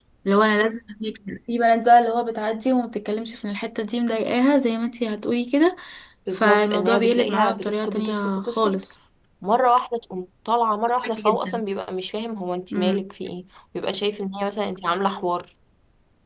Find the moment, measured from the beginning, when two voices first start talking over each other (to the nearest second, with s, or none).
6 s